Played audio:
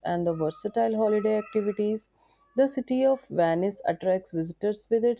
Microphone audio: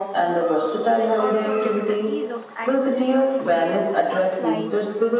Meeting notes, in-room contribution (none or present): present